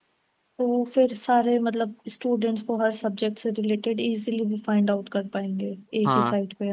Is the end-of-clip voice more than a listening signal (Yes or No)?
Yes